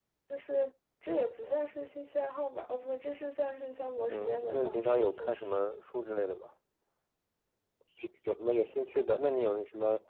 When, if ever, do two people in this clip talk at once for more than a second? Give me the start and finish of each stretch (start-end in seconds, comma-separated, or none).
4.1-5.7